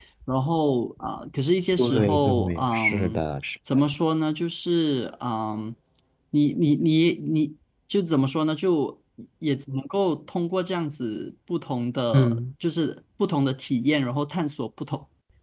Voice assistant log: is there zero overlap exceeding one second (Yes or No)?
No